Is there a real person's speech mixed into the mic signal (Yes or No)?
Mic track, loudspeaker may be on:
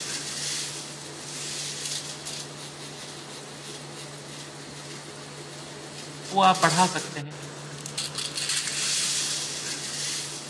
Yes